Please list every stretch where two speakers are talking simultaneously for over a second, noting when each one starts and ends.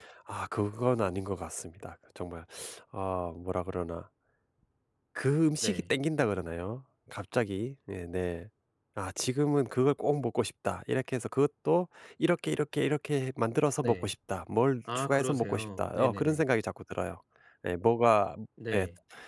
14.9-16.4

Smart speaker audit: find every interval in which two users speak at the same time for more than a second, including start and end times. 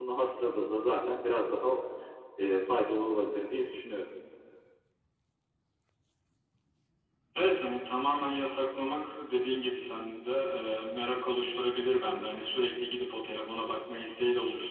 none

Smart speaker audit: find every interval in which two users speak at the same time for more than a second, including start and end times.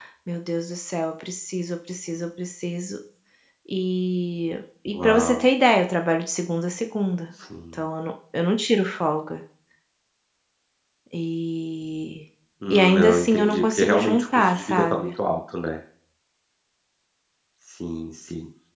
12.7-15.1

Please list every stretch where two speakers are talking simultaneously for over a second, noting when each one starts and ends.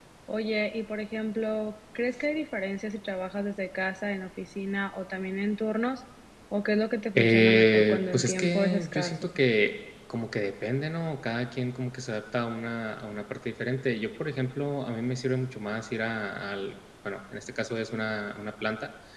7.2-9.3

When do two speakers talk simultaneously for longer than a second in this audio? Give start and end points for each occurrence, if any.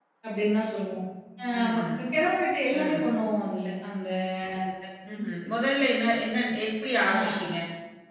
none

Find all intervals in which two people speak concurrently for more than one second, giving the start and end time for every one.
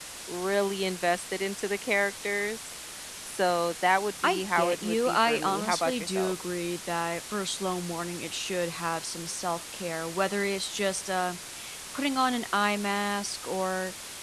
4.2-6.3

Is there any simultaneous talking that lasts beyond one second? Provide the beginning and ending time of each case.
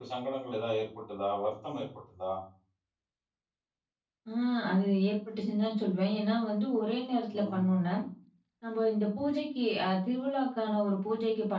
none

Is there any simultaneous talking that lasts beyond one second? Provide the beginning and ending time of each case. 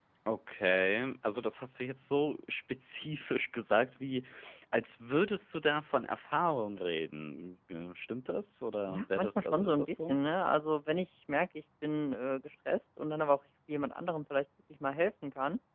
8.9-10.2

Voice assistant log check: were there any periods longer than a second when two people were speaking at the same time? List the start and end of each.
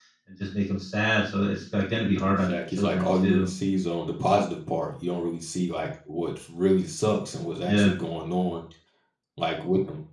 2.2-3.5

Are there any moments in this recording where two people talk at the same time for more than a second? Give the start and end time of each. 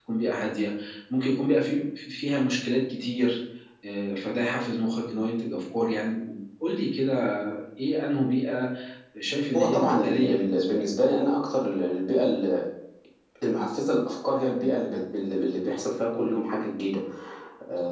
9.6-10.8

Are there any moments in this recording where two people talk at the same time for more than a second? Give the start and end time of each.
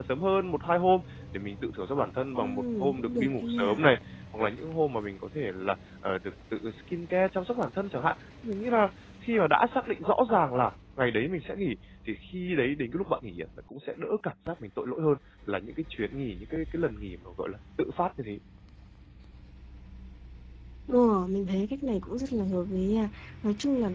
2.4-3.8

